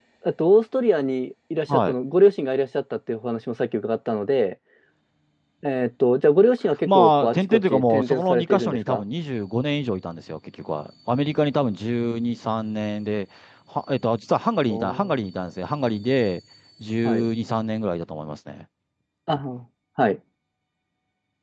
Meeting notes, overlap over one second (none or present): present